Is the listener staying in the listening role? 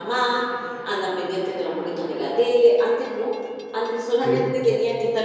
Yes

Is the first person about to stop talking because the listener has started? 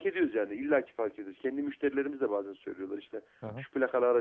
No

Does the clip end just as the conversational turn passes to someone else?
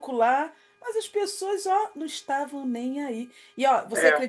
No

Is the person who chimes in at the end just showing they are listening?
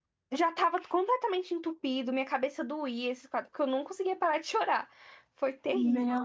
No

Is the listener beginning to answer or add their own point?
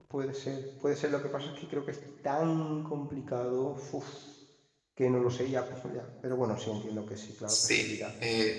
Yes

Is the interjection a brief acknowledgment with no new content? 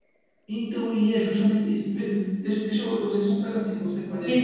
No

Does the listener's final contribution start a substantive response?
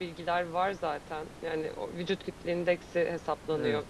No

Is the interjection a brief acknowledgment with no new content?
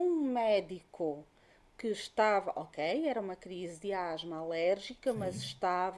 Yes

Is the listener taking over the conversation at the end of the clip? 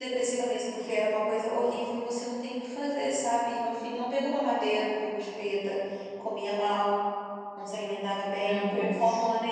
No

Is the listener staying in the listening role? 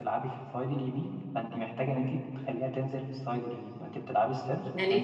No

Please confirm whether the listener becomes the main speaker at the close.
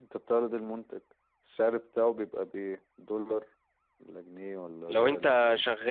Yes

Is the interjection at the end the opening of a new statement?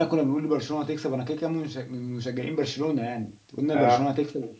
No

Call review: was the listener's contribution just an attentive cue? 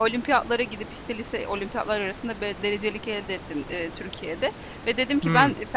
Yes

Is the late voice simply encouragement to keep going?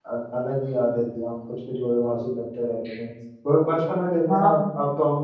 Yes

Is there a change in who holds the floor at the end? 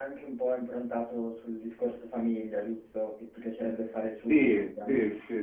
Yes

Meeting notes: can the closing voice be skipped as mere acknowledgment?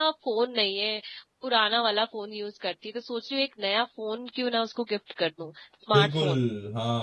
No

